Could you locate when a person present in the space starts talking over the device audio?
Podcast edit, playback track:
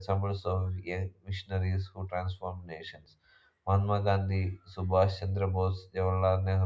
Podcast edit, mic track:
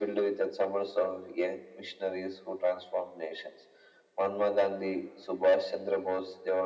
none

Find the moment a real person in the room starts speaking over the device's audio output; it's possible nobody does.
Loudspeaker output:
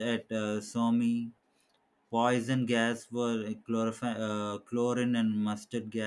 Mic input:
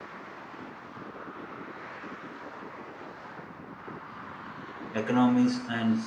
4.9 s

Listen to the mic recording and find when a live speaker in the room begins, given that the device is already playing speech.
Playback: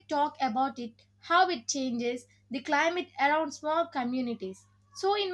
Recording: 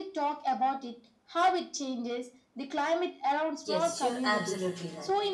3.6 s

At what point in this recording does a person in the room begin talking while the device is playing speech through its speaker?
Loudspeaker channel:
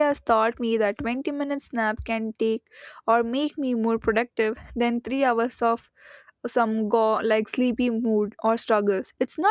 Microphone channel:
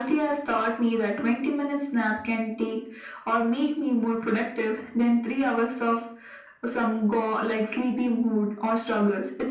none

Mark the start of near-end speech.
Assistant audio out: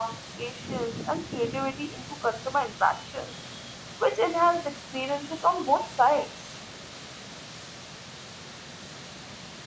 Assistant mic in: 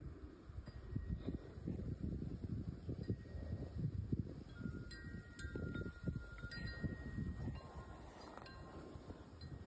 none

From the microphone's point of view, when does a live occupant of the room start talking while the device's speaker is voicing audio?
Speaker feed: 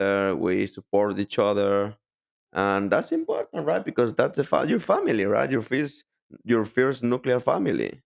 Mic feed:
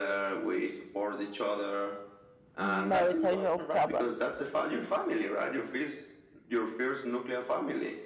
2.5 s

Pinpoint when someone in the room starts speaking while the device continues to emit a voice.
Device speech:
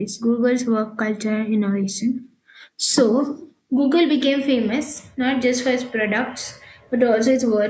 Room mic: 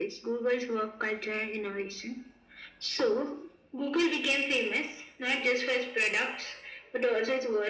none

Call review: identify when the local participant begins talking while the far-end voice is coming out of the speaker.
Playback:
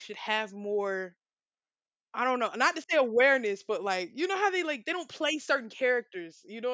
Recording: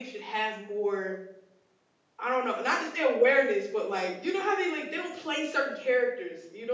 none

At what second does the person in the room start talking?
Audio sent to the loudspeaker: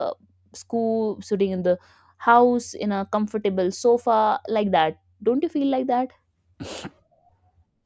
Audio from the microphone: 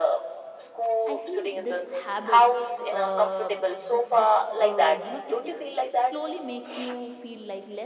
0.9 s

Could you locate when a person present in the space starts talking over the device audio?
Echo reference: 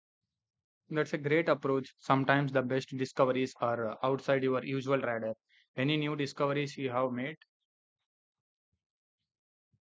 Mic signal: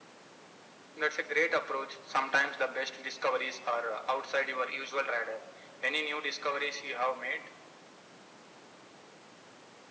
none

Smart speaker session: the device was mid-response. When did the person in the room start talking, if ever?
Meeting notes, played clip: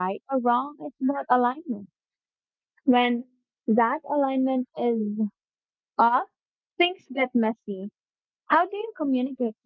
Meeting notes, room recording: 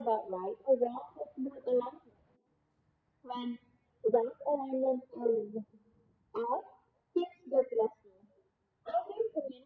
none

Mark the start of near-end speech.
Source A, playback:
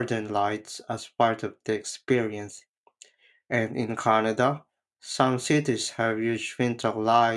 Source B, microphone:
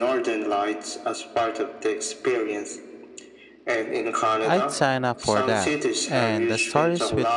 4.4 s

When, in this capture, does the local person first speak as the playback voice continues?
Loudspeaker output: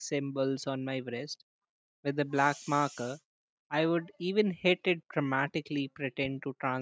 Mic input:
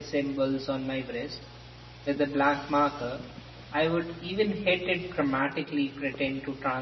none

